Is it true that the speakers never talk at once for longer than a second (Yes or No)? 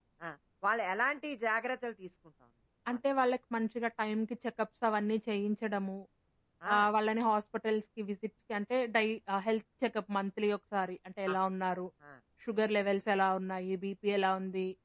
Yes